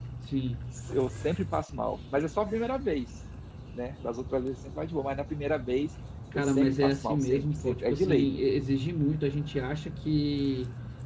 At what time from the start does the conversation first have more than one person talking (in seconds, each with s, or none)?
6.3 s